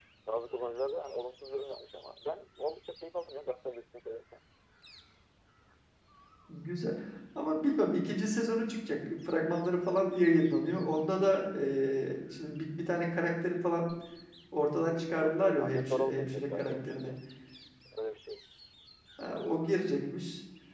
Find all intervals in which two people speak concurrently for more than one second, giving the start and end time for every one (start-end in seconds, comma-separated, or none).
15.1-17.1